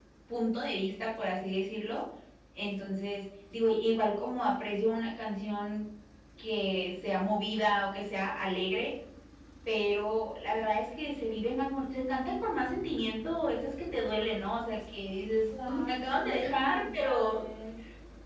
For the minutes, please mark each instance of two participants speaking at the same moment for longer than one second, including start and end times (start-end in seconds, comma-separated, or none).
15.5-17.4